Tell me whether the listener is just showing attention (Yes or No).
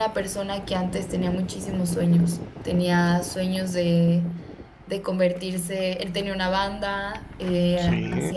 Yes